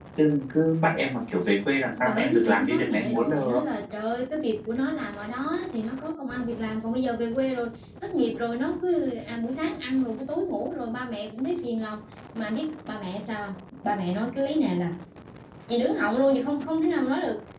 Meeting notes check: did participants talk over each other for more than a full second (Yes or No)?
Yes